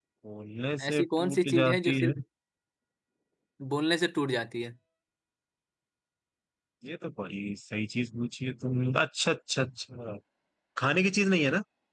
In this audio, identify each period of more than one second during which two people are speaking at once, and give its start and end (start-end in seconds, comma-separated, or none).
0.9-2.1